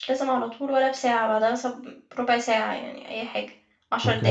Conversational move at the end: taking over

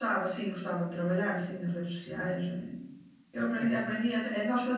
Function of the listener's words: listening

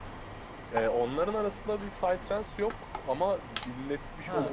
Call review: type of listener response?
listening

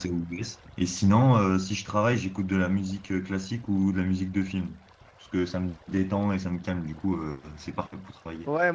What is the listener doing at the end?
taking over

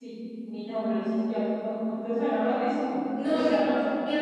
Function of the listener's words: taking over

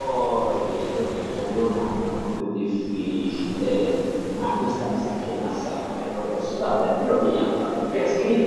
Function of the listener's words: listening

